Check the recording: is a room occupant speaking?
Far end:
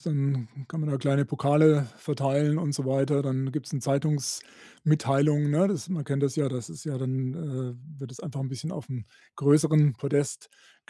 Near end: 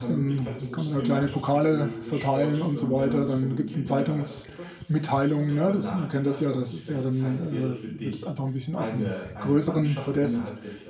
Yes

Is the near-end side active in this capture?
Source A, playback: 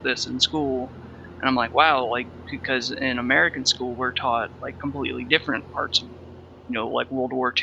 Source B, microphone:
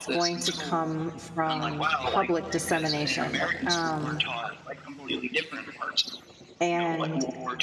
Yes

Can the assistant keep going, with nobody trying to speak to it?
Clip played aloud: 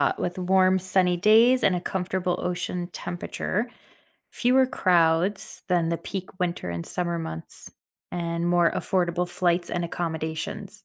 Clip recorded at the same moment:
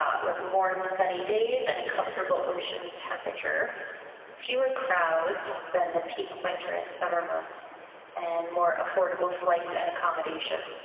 Yes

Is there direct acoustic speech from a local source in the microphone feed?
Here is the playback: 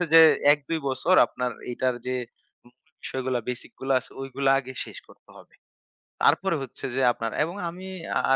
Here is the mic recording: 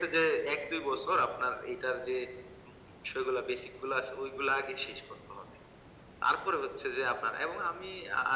No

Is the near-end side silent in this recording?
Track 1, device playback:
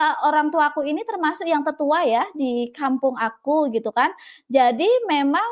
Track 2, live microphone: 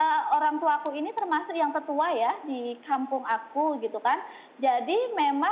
Yes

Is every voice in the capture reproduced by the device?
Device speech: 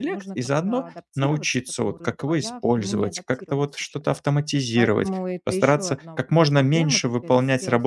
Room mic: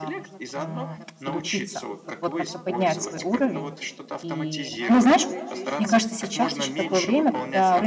No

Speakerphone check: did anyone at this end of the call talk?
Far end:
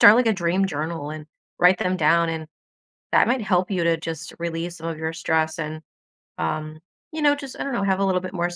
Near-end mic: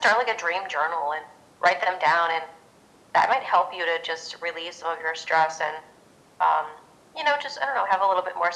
No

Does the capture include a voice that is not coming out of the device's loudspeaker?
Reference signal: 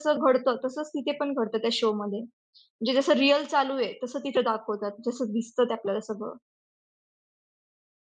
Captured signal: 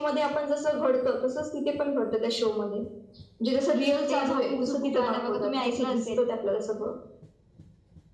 Yes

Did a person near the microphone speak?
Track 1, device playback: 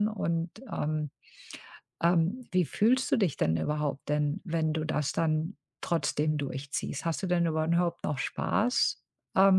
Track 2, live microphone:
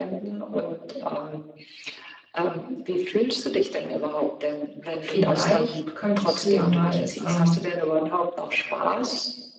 Yes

